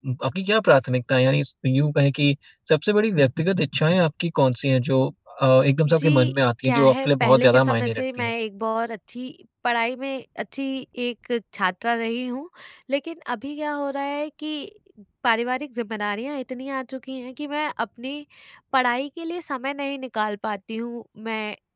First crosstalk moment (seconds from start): 5.9 s

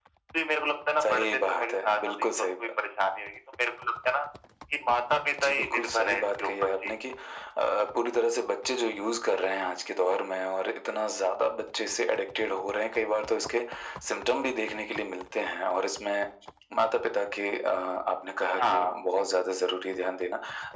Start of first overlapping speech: 1.0 s

